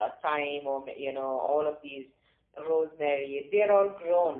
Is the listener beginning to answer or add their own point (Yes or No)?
Yes